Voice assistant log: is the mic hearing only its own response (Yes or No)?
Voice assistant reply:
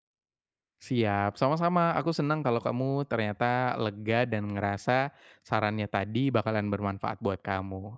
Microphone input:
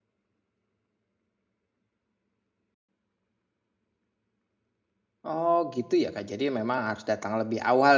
No